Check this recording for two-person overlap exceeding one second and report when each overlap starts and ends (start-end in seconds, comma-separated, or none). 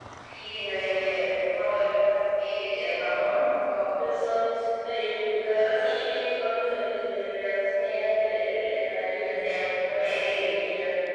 none